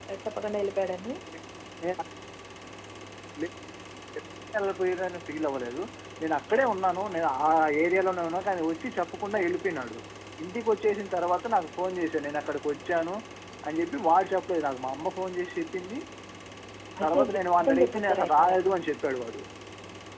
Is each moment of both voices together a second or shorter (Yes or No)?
No